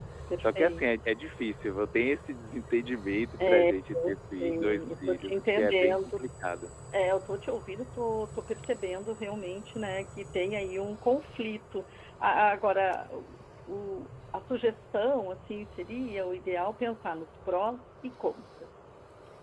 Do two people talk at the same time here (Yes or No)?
Yes